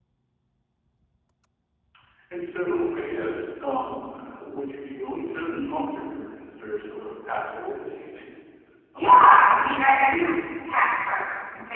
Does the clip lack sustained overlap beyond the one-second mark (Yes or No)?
No